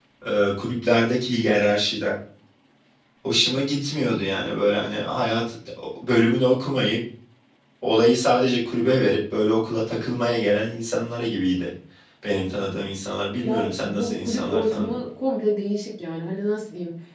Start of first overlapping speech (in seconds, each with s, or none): 13.4 s